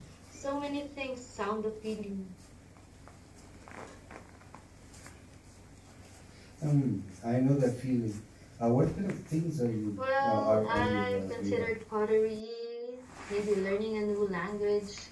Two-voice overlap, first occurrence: 10 s

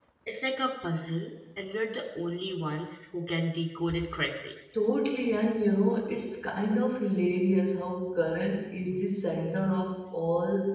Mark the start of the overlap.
none

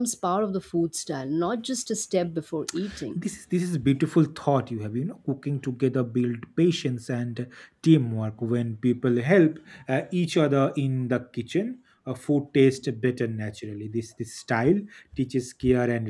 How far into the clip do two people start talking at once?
none

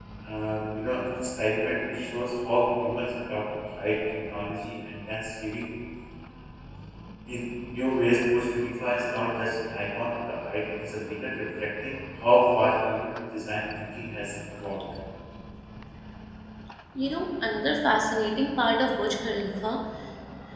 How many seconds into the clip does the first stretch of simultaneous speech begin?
none

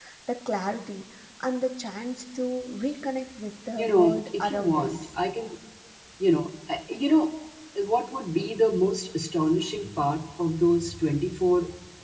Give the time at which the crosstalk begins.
4 s

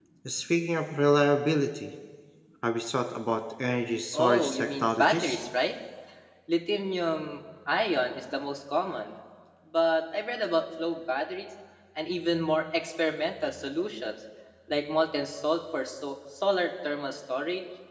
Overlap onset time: 4 s

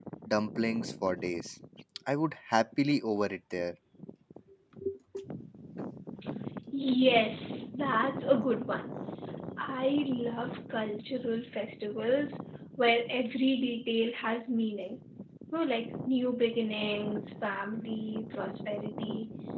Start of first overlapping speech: none

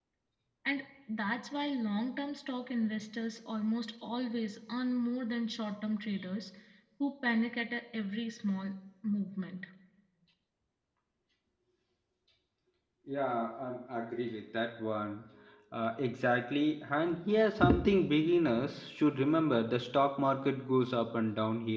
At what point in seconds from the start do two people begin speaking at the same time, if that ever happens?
none

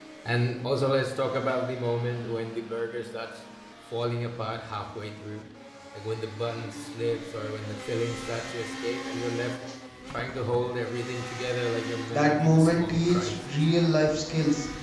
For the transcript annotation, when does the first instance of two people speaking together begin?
12 s

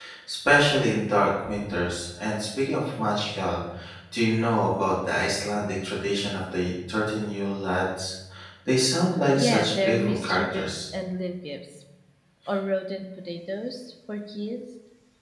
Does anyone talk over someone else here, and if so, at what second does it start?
9 s

